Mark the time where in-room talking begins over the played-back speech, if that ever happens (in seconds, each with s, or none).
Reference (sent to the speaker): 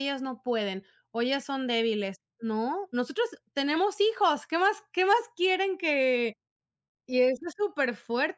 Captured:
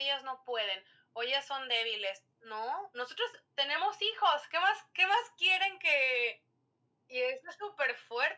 none